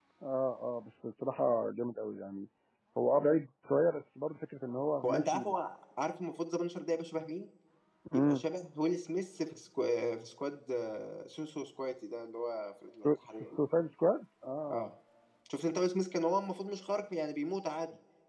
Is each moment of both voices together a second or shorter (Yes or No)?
Yes